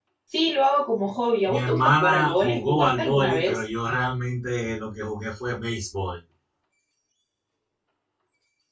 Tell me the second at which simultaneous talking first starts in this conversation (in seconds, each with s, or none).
1.5 s